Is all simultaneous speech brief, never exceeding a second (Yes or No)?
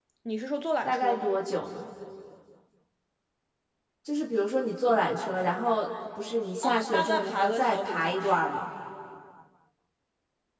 No